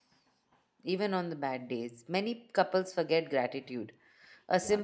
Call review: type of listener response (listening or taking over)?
listening